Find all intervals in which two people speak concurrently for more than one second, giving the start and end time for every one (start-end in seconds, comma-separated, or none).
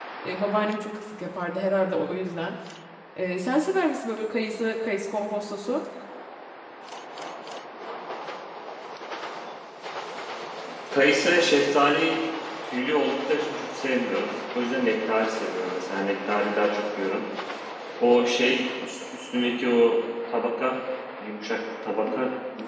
none